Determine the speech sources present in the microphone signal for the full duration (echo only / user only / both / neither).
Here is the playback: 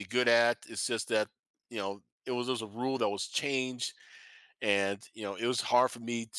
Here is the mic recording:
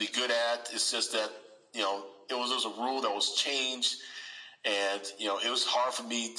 echo only